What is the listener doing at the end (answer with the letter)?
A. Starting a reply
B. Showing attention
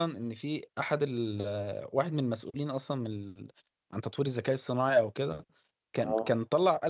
B